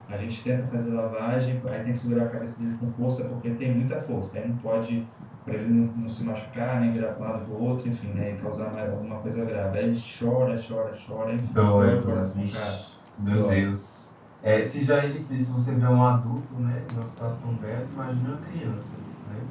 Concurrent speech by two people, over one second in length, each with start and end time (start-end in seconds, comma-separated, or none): 11.5-12.8